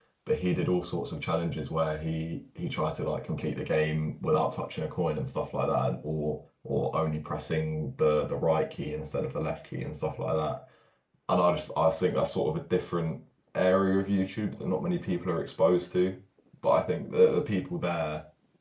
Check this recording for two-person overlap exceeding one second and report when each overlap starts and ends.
none

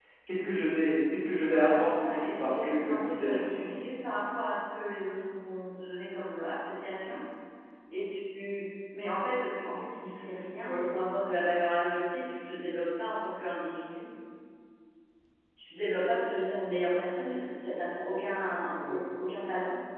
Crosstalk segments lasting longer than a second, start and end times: 1.4-3.4

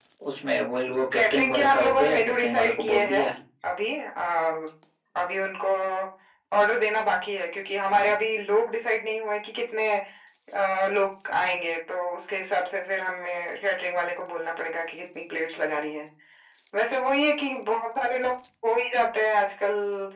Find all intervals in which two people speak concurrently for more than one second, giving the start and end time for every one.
1.2-3.3

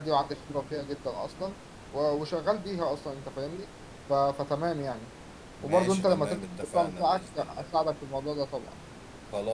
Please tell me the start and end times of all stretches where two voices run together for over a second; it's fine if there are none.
5.6-7.7

